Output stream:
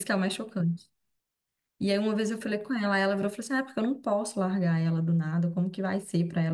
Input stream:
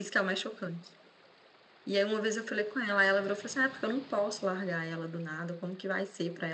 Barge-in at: none

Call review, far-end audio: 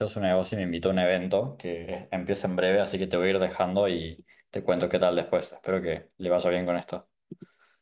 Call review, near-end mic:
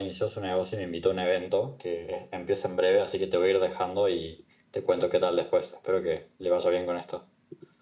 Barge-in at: none

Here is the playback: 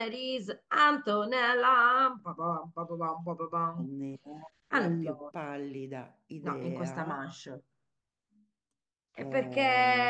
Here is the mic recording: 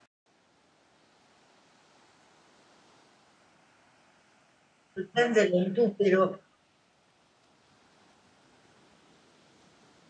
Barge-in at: 5.0 s

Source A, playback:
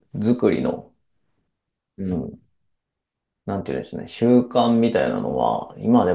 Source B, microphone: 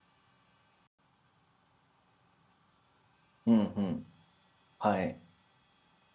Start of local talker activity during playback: 3.4 s

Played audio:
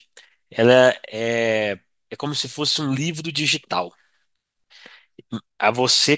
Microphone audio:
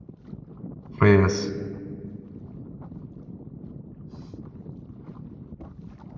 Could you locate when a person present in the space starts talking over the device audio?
1.0 s

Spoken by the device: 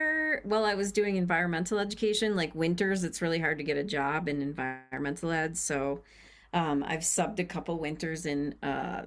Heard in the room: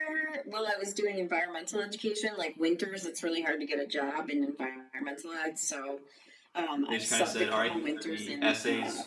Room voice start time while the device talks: 6.9 s

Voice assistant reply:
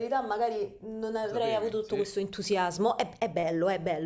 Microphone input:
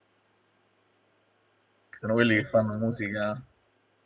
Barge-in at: 2.0 s

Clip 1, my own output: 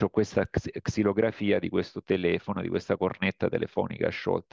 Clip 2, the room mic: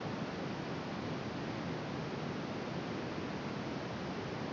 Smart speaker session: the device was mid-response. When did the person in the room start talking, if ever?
none

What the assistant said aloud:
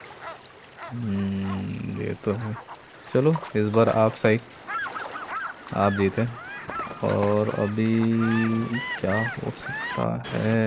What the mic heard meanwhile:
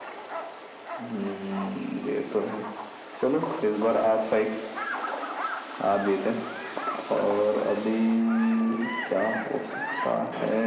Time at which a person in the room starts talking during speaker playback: none

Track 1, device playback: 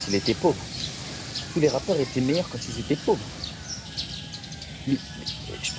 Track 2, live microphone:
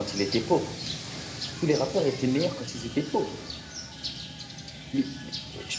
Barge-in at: none

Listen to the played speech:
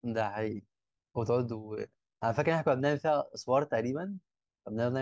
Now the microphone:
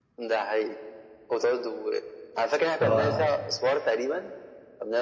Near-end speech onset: 2.8 s

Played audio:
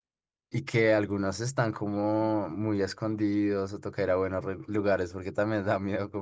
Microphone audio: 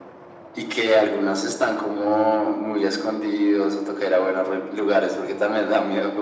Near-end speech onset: none

